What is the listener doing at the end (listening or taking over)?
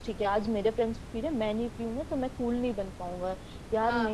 listening